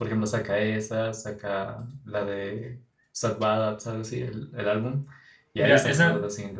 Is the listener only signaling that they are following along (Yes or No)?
No